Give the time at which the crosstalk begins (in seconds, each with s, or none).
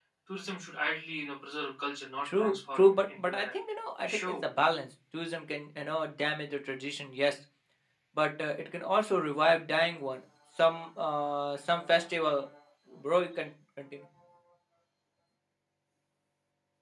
2.2 s